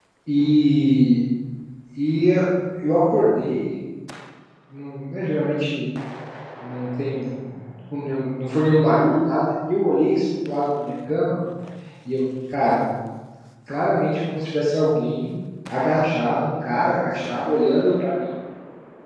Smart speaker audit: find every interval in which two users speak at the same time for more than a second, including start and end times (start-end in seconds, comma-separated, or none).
none